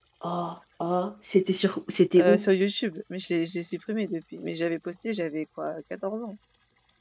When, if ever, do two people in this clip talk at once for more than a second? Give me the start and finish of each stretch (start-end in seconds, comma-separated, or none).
none